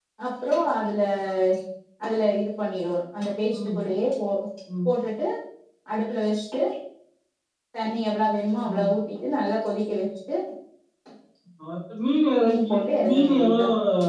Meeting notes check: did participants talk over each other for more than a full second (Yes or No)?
Yes